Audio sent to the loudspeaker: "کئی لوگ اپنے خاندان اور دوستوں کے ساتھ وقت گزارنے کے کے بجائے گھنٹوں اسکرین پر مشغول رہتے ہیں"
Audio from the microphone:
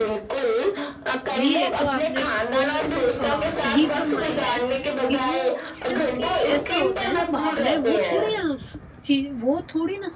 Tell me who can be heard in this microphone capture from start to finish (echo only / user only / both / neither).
both